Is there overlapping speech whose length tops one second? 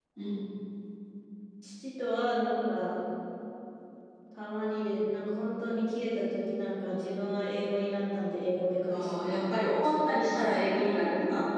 Yes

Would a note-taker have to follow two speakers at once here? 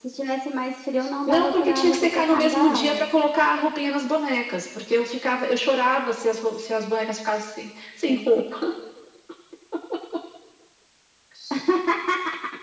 Yes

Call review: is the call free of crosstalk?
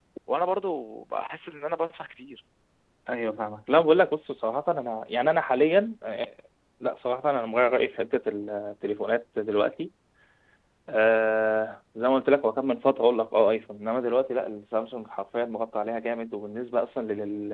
Yes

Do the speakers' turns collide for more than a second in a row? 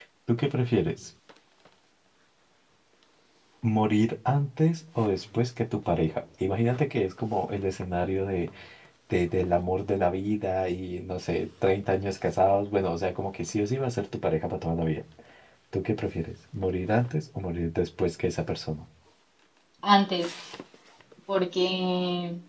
No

